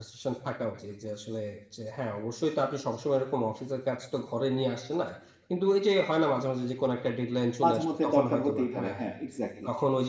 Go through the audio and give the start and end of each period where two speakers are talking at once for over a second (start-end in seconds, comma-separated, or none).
7.6-9.2